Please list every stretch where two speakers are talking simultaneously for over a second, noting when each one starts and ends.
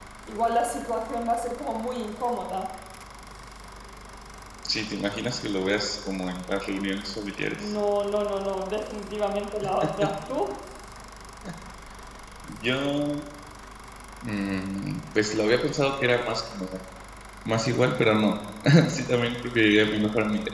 none

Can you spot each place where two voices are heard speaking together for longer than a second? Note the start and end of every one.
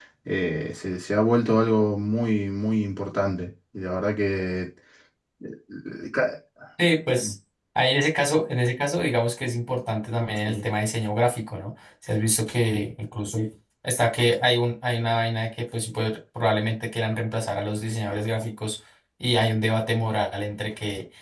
none

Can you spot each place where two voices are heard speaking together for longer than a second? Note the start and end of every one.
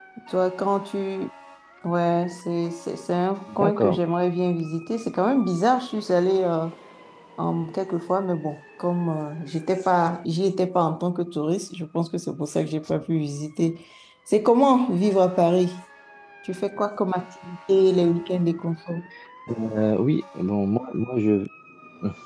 none

